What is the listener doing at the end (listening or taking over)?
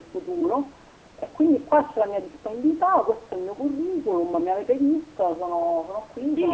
taking over